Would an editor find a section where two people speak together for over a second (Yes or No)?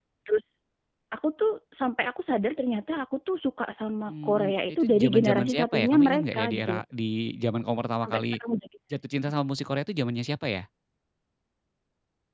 Yes